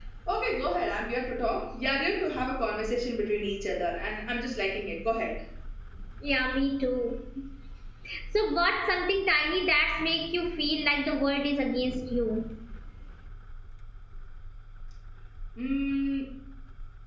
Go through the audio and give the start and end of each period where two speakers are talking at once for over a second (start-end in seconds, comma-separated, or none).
none